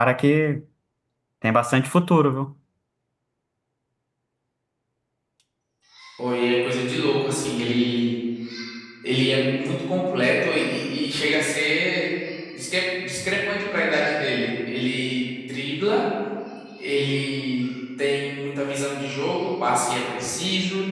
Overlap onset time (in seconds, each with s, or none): none